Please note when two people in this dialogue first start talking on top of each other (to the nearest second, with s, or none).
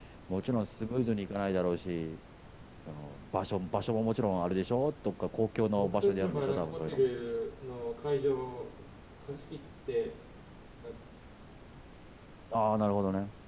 6 s